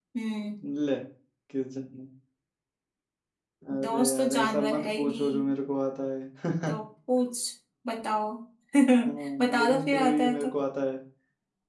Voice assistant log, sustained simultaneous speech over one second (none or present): present